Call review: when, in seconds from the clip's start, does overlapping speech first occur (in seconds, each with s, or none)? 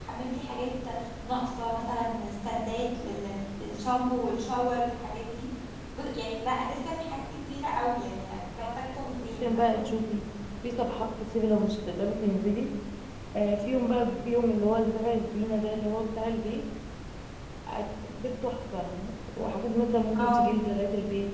8.6 s